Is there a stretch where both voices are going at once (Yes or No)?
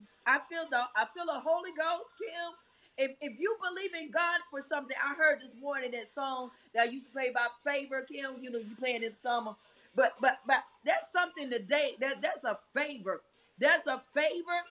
No